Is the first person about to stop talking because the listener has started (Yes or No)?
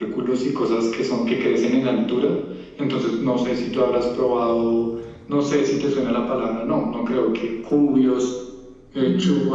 No